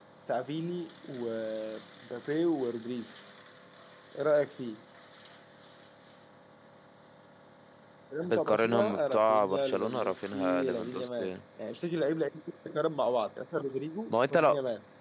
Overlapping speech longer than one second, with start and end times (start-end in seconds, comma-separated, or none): 8.2-11.3